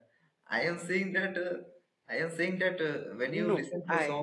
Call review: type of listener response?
listening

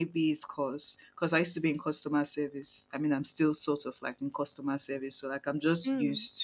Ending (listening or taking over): listening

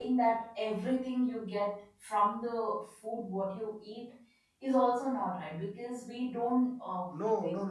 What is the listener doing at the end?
taking over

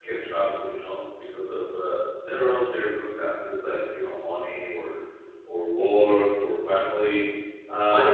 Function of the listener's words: taking over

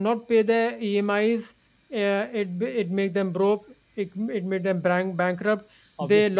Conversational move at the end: listening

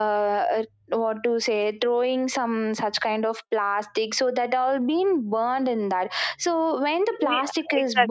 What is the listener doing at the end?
taking over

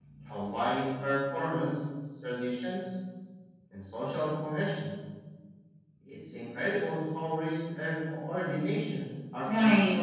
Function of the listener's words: taking over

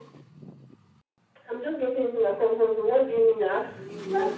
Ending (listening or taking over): taking over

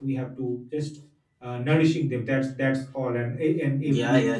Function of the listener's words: taking over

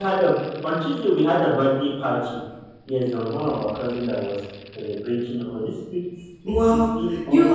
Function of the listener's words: taking over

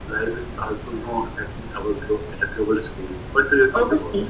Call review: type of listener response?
taking over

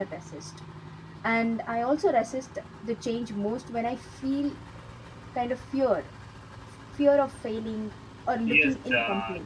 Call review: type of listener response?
taking over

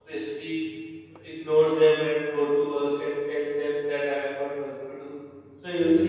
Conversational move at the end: listening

